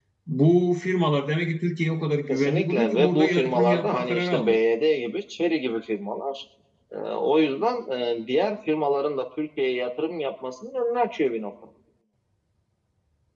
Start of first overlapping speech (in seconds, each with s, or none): 2.3 s